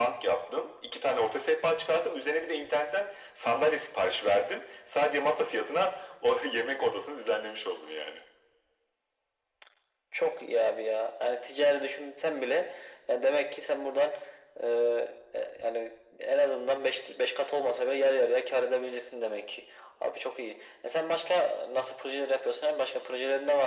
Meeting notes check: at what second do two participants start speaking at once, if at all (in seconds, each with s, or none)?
none